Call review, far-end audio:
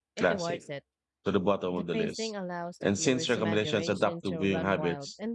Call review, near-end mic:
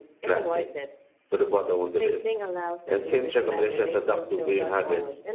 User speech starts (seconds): none

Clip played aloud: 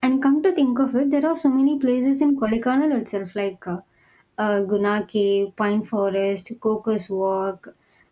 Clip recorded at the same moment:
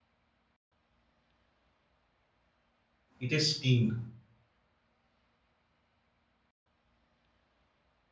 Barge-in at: 3 s

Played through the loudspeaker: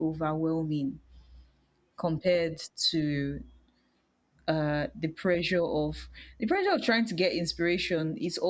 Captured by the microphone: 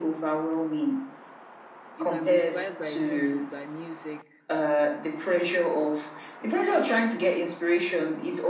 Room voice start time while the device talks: 2 s

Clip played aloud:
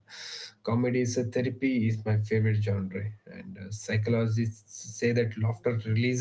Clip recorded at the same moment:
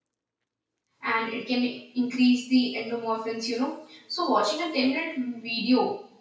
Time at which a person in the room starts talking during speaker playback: 1 s

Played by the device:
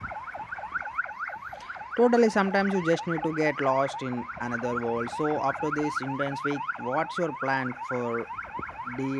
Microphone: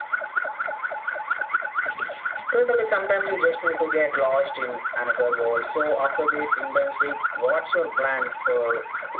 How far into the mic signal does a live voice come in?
none

